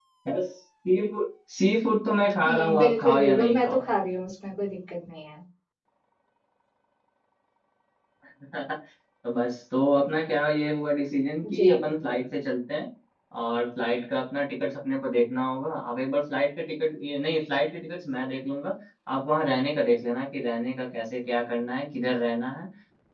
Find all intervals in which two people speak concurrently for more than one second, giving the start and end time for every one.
2.5-3.8

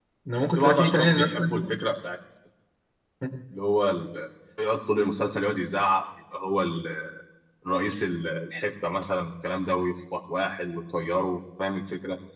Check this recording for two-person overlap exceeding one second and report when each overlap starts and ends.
0.6-1.8

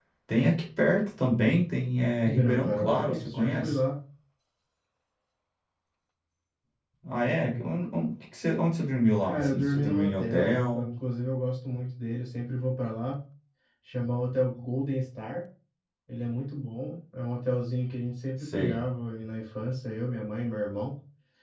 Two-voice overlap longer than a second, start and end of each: 2.2-3.8, 9.2-10.9

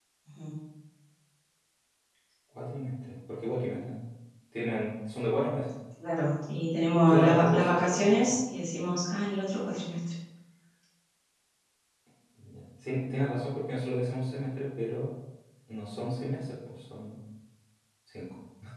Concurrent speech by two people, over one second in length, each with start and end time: 7.1-8.4

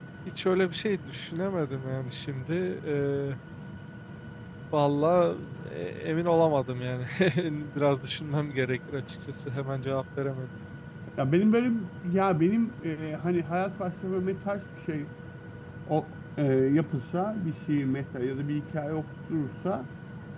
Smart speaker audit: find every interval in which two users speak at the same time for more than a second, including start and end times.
none

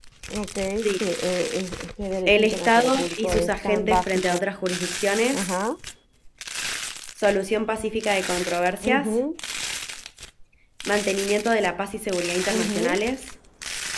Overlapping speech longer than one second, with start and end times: 2.3-4.4

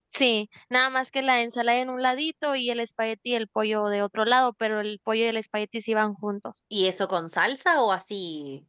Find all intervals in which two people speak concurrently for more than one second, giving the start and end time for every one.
none

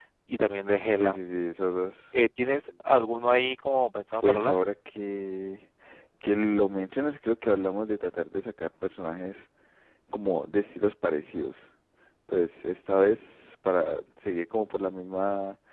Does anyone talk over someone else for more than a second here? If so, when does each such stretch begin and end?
none

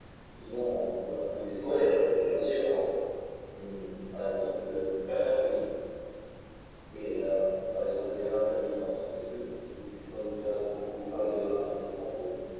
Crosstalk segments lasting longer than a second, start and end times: 1.6-2.8

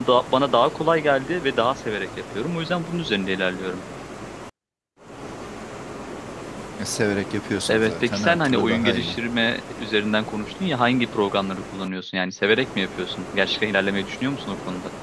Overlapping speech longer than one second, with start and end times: 7.7-9.2

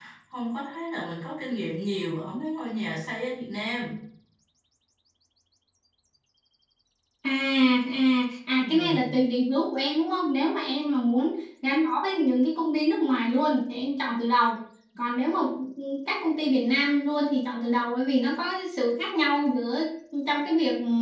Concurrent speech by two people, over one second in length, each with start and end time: none

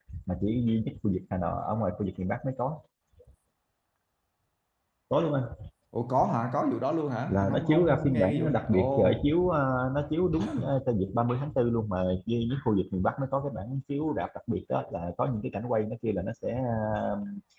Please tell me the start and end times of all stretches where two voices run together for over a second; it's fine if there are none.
7.3-9.2

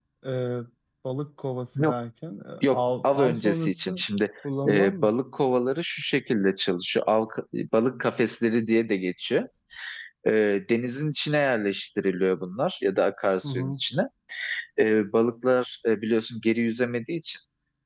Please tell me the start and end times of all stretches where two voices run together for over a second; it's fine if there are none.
2.6-4.0

